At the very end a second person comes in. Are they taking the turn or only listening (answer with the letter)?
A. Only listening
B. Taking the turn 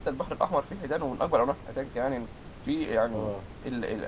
A